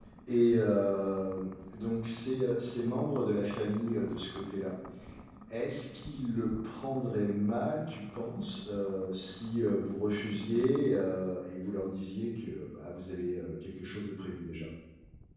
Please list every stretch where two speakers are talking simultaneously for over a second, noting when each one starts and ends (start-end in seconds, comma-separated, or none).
none